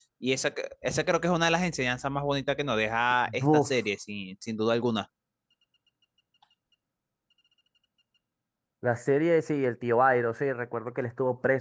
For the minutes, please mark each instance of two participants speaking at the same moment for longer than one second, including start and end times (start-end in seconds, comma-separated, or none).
none